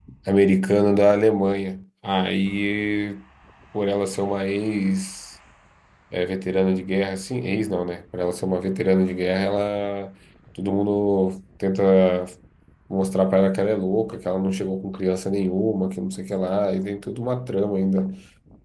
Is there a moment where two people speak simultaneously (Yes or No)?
No